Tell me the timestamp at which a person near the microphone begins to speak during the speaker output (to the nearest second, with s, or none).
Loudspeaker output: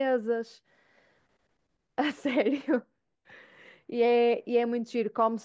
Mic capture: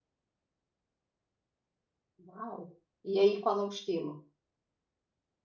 2 s